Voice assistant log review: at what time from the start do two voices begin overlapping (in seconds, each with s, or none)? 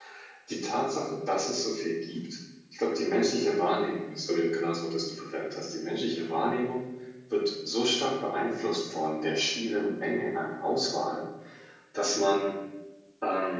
none